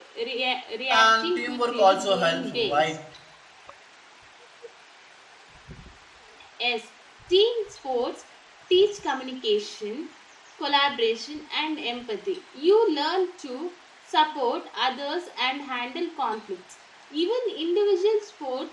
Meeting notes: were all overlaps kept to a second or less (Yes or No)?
No